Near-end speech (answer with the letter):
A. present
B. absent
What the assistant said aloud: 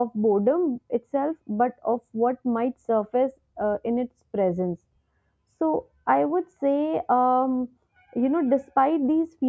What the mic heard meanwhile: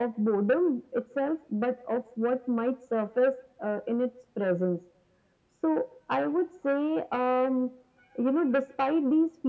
B